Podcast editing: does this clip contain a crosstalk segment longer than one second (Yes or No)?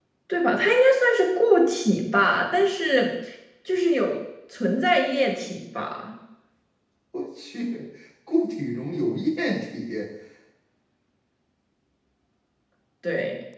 No